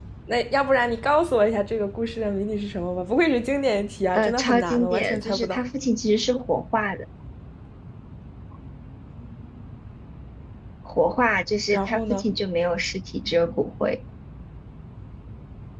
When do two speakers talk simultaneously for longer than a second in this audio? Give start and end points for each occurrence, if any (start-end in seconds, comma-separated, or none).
4.1-5.6